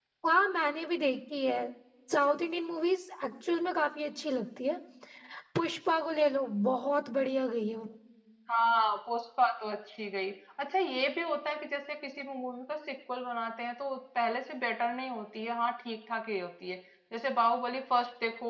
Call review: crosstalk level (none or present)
none